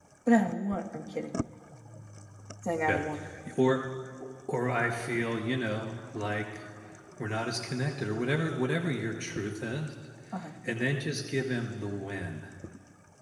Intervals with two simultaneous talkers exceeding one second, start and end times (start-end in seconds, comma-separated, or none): none